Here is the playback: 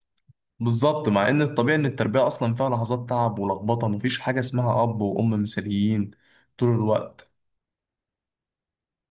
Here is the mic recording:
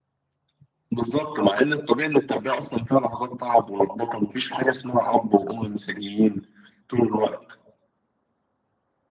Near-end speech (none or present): none